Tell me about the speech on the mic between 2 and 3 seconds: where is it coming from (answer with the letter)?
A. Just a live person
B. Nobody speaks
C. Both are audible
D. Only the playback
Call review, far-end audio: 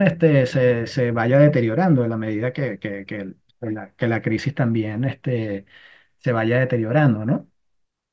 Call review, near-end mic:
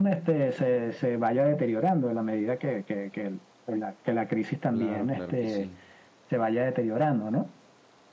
D